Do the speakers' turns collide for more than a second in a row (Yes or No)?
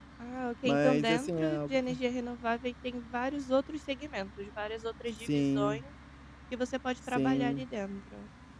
Yes